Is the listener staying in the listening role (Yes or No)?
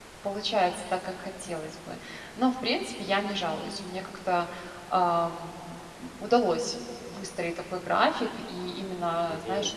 Yes